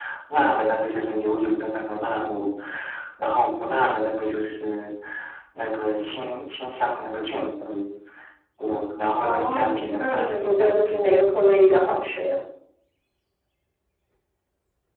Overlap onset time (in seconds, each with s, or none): 9.2 s